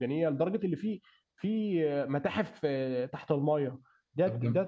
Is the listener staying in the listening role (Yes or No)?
Yes